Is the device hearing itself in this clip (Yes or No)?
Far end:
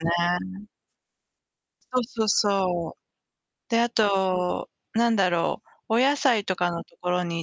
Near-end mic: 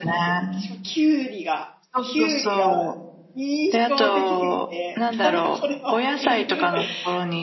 Yes